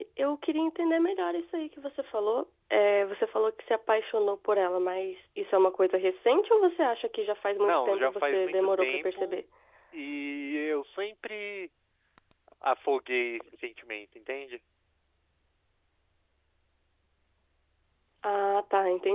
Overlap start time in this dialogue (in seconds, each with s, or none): 7.6 s